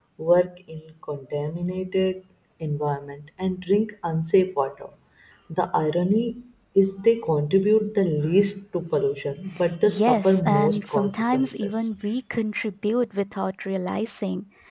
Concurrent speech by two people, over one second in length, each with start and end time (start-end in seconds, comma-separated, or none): 9.8-11.9